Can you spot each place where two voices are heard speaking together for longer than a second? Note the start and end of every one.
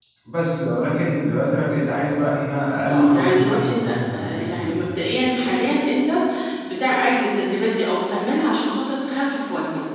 2.9-4.8

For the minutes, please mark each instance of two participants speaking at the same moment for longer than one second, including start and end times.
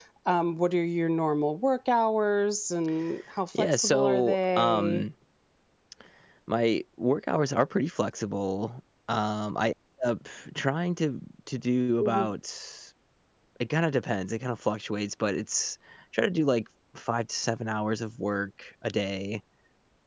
3.6-5.0

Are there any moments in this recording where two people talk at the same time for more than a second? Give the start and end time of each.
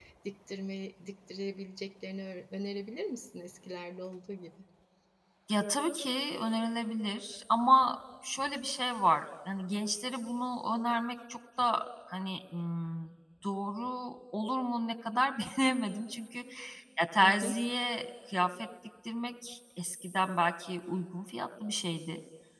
none

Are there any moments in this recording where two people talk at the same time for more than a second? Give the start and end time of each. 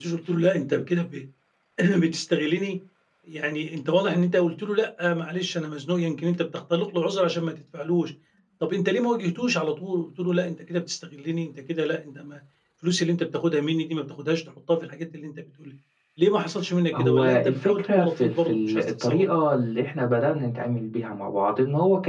17.0-19.2

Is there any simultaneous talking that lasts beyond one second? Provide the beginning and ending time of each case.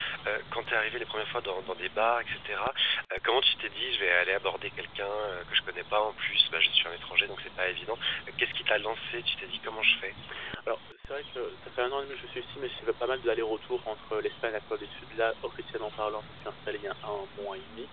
none

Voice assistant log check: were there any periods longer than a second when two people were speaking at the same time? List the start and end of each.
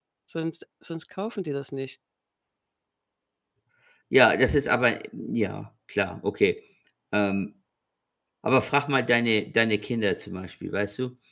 none

